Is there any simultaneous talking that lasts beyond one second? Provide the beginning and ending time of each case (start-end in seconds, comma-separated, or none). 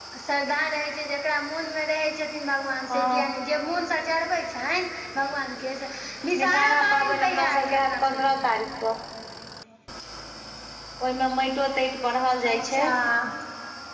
6.4-8.4